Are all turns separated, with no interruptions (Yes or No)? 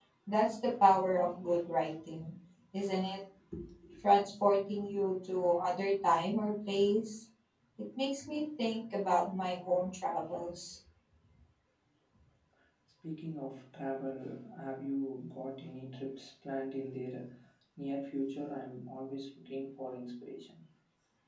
Yes